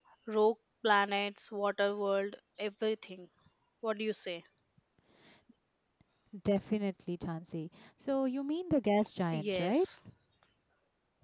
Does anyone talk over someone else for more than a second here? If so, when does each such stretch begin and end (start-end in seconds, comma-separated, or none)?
none